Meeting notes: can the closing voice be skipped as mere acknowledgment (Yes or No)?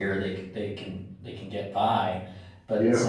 Yes